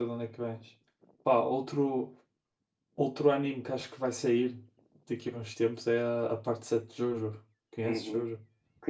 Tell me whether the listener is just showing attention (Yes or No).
No